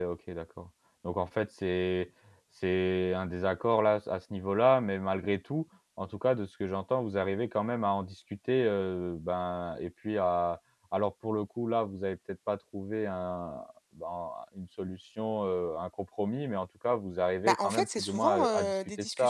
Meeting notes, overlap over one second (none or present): present